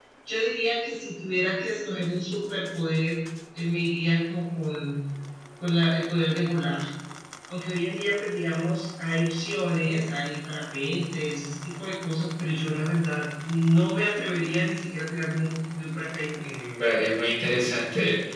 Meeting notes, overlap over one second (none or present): none